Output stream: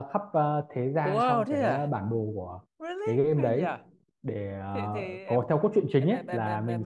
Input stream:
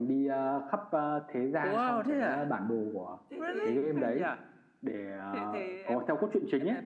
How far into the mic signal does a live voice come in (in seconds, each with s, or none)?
3.3 s